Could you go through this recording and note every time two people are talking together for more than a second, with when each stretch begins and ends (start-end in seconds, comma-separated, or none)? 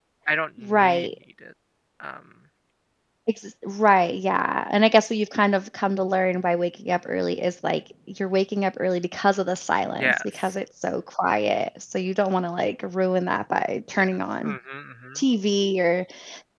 none